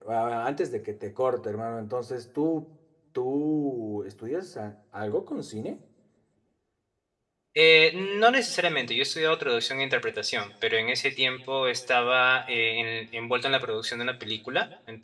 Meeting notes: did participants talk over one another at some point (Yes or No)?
No